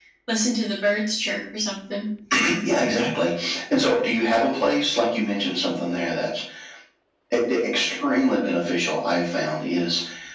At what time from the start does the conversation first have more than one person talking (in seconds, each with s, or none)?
none